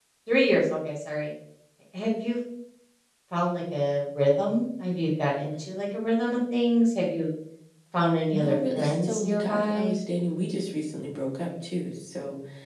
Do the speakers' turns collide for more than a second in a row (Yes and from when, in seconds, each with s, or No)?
Yes, from 8.3 s